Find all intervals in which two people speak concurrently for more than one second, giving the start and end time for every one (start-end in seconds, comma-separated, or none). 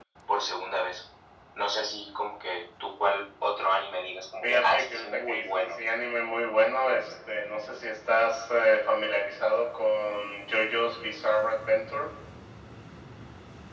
4.4-5.8